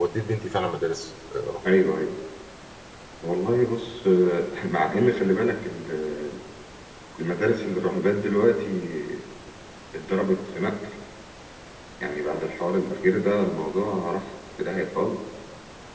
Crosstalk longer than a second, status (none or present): none